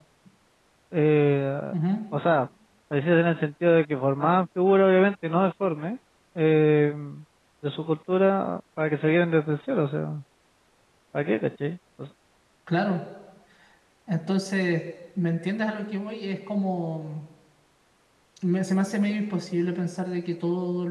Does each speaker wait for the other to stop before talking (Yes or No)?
Yes